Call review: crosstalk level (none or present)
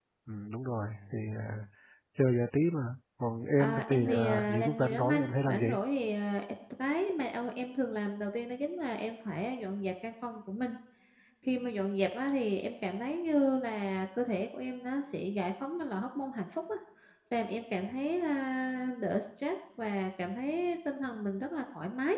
present